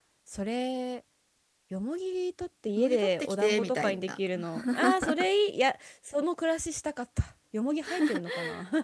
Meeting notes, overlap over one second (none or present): present